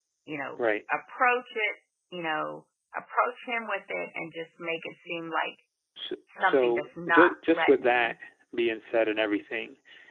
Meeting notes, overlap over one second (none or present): present